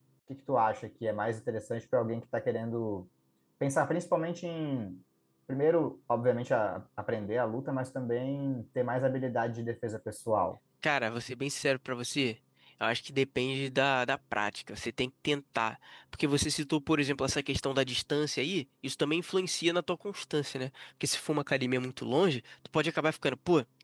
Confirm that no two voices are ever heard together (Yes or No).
Yes